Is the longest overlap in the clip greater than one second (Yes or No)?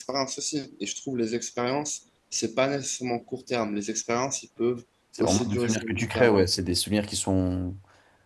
Yes